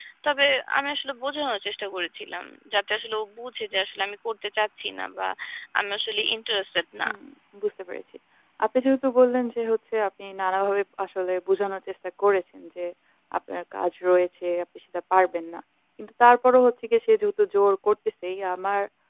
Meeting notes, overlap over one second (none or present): none